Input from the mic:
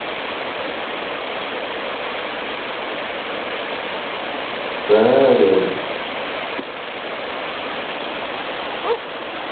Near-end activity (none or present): present